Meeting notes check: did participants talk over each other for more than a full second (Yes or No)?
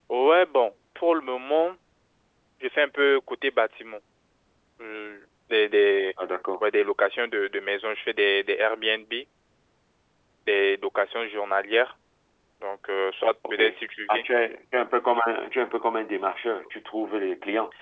No